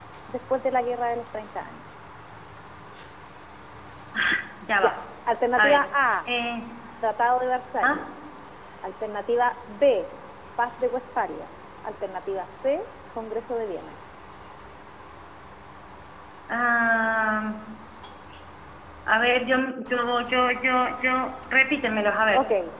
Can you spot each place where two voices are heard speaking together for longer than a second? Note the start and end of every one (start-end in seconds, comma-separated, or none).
none